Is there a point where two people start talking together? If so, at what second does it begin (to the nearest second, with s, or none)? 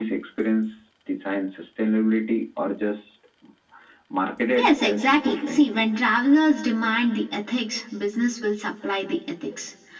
5 s